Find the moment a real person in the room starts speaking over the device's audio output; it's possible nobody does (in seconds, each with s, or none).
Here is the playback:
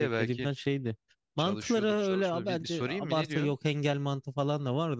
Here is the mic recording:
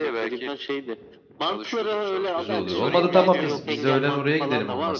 2.4 s